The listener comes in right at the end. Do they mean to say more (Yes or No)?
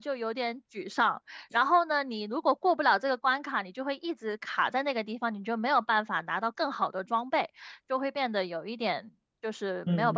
Yes